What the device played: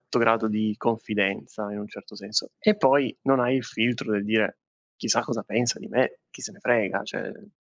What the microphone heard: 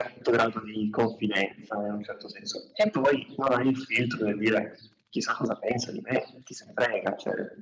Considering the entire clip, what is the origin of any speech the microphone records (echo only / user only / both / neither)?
echo only